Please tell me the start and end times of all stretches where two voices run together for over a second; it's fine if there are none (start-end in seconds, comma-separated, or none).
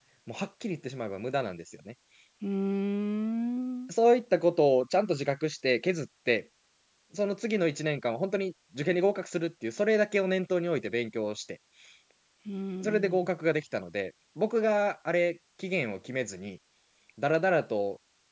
none